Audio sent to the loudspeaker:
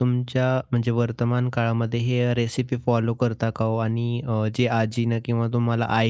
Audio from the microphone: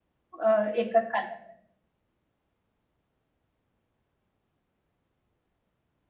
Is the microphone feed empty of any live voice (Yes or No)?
No